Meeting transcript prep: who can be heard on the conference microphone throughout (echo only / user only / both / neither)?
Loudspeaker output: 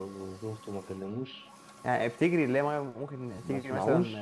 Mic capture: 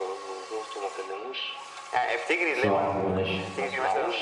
both